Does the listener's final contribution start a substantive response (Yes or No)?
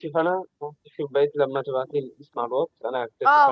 Yes